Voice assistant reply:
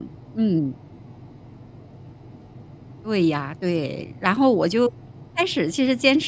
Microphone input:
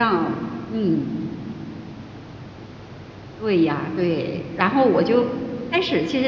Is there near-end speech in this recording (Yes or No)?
No